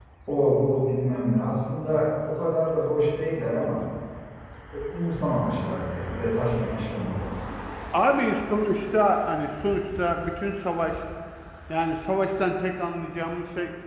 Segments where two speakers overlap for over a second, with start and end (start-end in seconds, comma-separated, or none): none